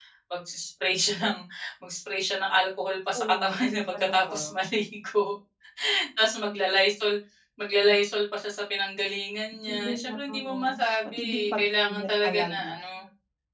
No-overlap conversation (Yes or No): No